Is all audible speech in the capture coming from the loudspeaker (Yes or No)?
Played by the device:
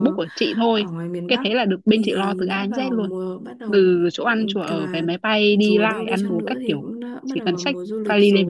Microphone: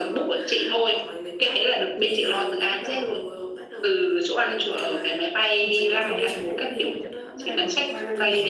No